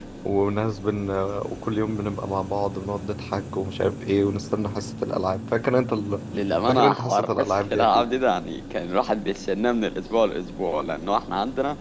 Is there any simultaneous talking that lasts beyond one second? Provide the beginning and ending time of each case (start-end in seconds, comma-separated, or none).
6.7-8.1